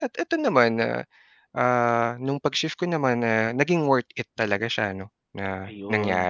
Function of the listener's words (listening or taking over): taking over